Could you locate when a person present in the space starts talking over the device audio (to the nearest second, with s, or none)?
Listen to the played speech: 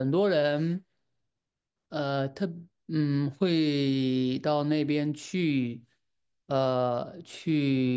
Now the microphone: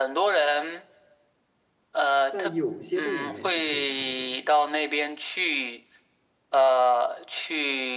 2 s